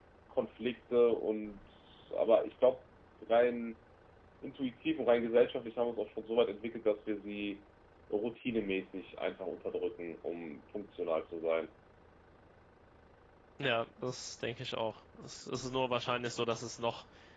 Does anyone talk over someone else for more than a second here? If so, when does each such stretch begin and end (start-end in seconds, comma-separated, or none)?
none